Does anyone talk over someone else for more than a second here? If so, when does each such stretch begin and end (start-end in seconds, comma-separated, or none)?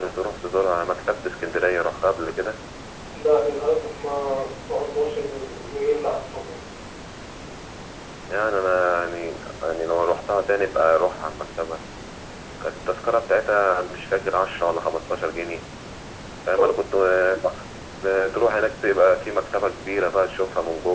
none